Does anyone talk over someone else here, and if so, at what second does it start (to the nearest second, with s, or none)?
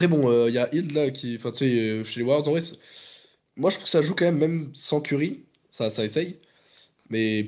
none